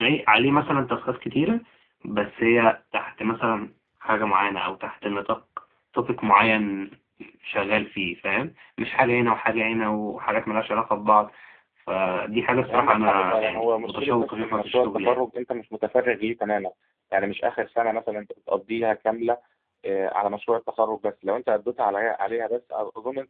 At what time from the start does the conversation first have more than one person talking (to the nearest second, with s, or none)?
13 s